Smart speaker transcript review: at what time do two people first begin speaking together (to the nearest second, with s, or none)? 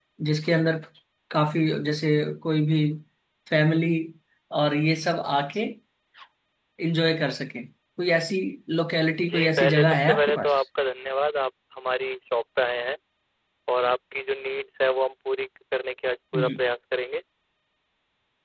9 s